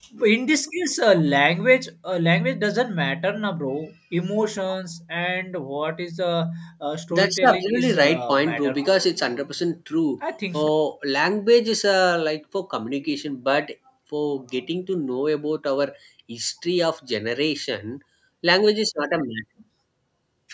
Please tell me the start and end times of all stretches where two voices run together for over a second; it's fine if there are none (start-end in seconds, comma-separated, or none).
7.1-9.1